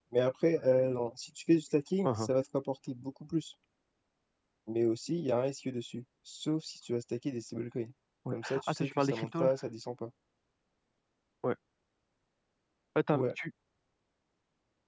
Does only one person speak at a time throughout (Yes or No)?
No